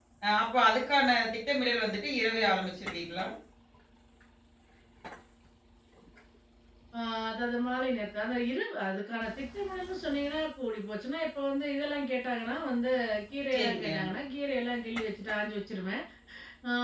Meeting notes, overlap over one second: none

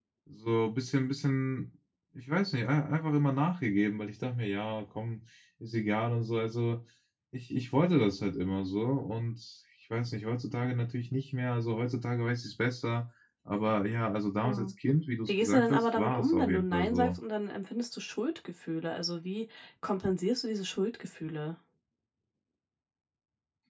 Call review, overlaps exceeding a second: present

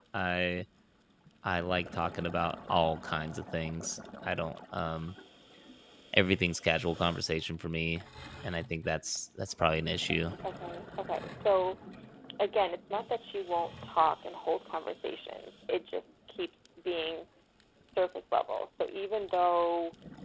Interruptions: none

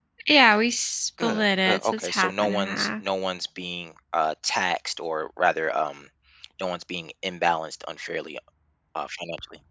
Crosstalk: present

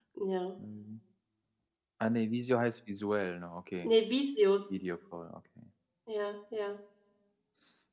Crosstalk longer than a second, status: none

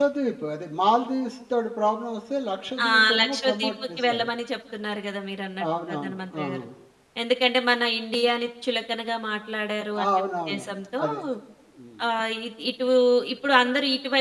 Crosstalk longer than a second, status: present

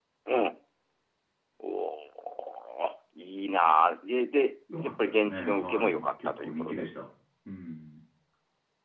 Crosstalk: present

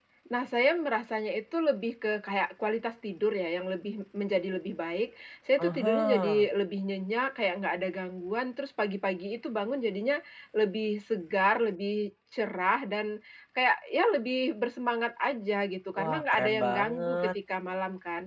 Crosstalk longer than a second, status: present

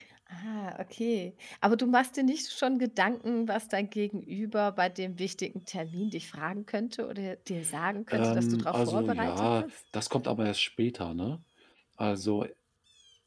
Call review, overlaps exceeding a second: present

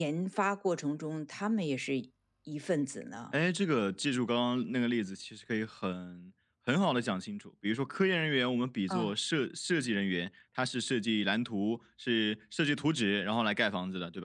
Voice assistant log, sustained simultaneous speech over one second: none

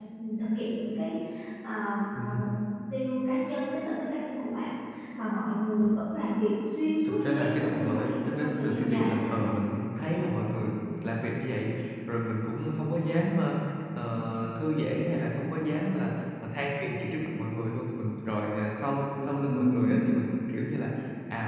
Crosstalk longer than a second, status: present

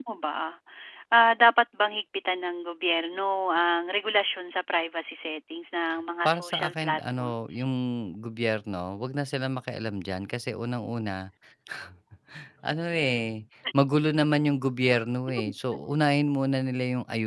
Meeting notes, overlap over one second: present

